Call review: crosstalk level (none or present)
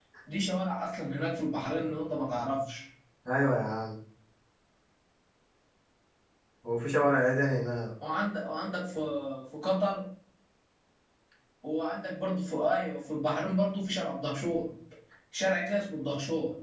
none